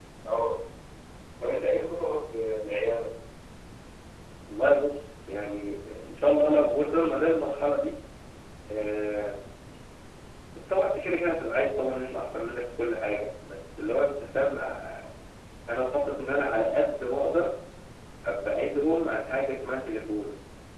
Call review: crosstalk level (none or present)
none